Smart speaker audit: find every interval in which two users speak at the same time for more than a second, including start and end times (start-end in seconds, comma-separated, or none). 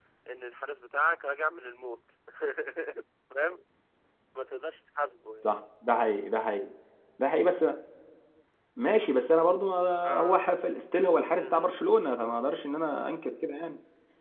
none